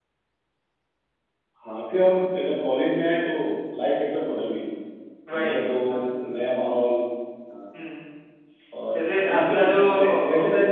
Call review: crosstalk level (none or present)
present